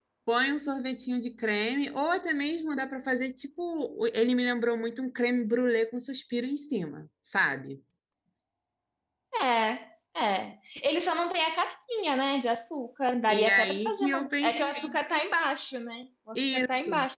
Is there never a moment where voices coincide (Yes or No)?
No